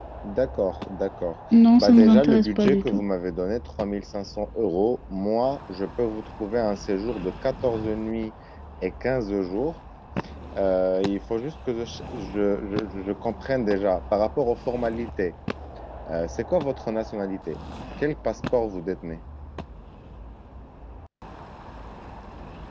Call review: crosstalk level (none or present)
present